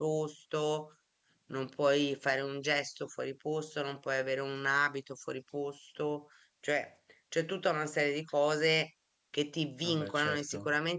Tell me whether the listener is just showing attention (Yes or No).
Yes